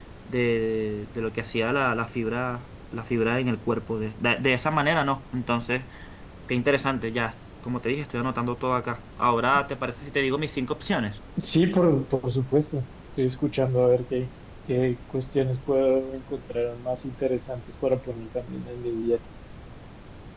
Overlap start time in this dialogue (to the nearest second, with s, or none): none